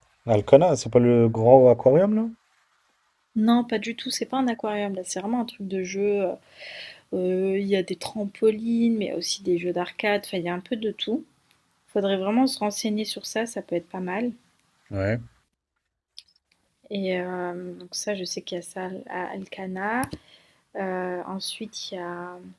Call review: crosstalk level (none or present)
none